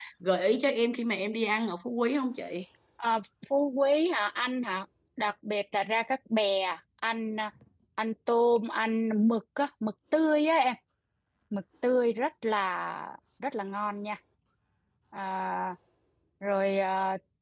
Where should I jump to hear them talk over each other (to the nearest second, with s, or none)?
none